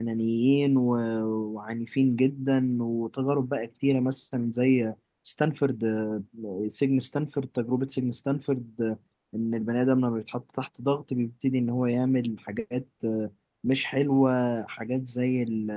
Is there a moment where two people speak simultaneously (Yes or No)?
No